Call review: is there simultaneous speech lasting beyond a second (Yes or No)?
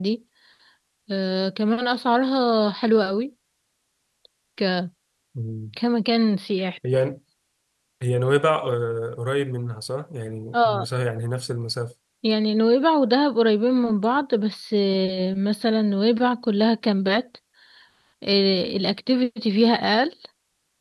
No